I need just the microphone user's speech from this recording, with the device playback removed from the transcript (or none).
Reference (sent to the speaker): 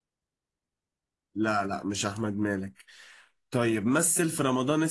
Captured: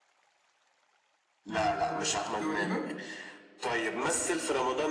آه... دواليبة